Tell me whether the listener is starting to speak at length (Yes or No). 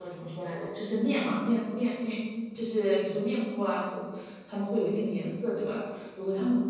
No